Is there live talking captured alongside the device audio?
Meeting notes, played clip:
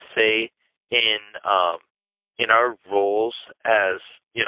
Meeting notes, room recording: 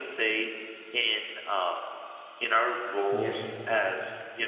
Yes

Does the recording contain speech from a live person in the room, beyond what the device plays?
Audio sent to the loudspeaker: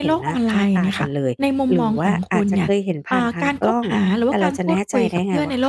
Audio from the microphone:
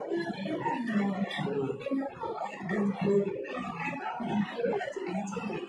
No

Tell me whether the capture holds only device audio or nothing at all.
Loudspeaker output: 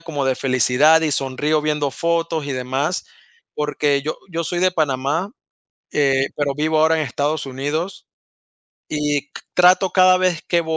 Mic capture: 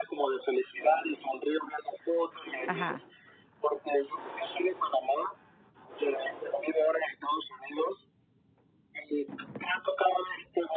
No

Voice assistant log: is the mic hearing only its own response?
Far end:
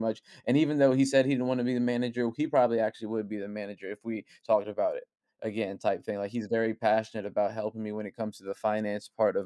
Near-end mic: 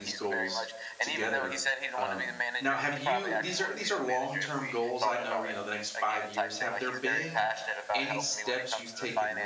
No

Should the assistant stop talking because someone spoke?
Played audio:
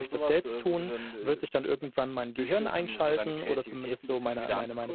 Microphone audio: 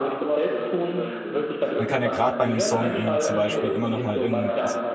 Yes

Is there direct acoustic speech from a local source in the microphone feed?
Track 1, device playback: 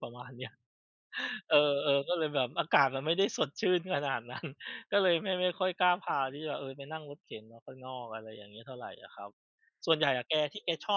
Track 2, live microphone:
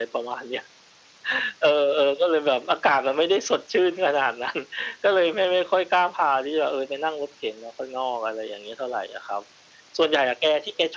No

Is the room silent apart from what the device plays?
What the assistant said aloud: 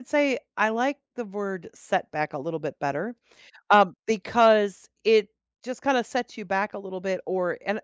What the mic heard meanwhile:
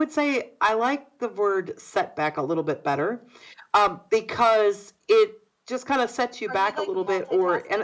No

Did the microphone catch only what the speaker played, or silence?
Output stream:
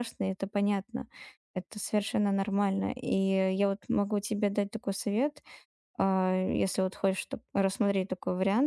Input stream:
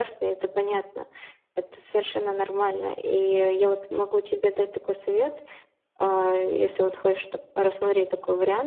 Yes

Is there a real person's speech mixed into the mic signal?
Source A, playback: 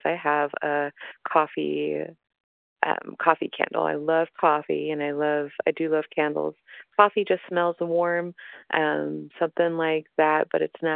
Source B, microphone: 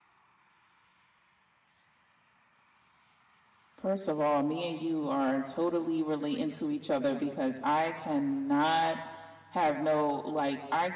Yes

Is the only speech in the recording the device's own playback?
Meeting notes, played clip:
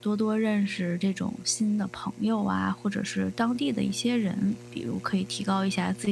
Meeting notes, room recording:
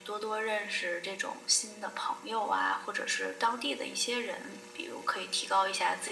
Yes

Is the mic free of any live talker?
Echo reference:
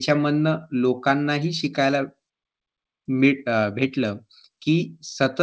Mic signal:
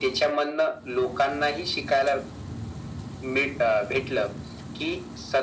Yes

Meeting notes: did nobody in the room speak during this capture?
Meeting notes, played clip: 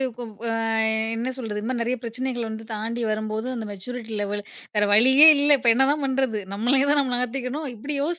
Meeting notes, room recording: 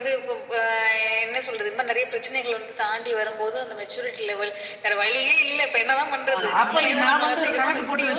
No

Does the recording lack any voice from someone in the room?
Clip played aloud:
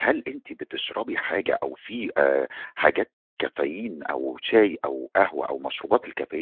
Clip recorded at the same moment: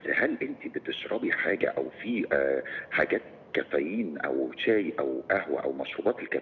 Yes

